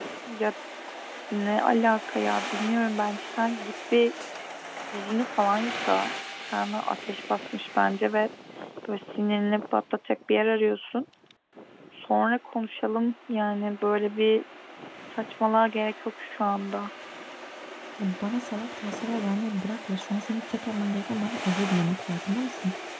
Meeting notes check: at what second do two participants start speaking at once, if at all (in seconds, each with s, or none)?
none